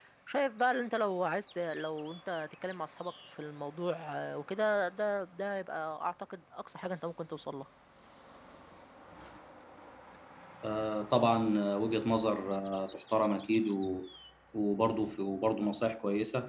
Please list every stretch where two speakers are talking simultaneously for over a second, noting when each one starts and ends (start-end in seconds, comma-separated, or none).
none